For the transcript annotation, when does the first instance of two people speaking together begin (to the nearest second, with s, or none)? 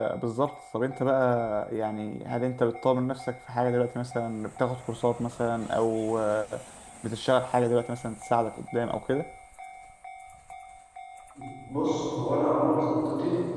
none